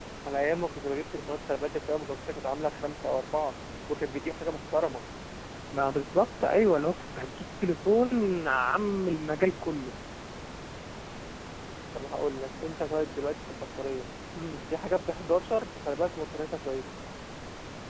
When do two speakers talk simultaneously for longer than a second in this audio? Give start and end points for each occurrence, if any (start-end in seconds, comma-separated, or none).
none